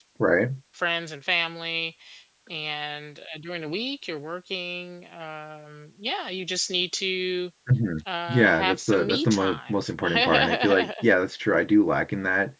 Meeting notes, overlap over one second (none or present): present